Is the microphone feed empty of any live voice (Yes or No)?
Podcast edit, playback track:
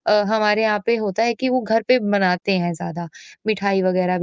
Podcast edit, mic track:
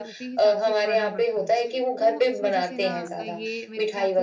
No